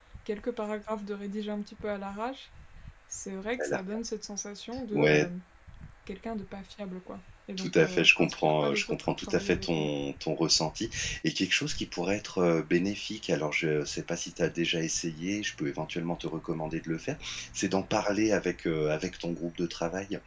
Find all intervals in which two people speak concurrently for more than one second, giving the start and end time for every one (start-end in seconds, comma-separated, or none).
7.6-9.9